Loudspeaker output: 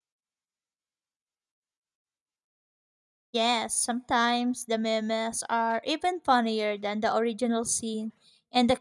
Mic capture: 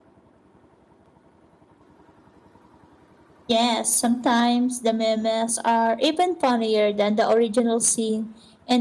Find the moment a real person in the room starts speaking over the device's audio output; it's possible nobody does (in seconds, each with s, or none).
none